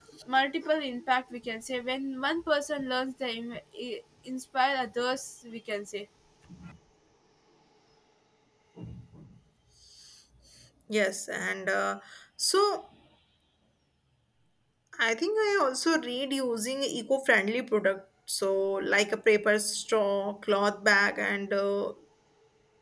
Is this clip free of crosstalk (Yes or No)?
Yes